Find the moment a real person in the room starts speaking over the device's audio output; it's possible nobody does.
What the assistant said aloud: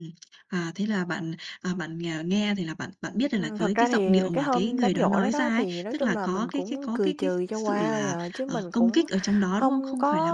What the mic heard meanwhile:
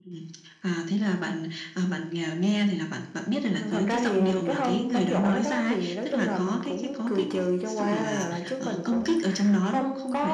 none

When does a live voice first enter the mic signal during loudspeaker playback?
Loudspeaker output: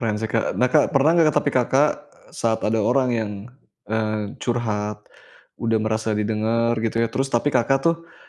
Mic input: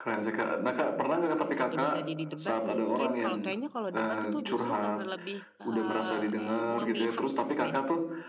1.4 s

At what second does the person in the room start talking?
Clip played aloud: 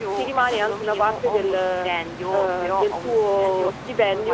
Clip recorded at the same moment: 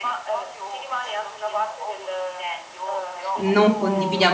3.4 s

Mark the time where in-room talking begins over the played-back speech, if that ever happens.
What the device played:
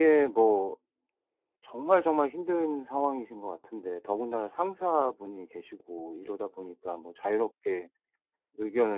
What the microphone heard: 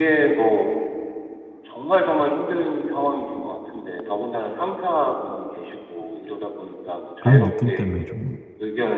7.2 s

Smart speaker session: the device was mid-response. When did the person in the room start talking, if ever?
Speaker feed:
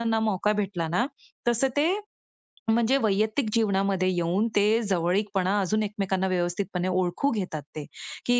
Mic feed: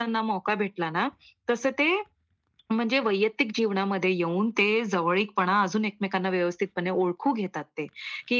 none

